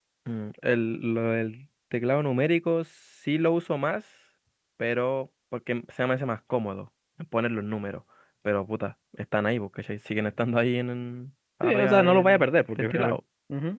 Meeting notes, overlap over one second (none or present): present